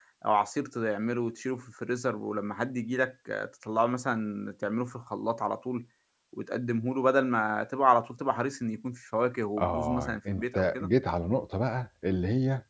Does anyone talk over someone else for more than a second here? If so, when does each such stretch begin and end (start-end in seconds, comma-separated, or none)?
9.6-10.9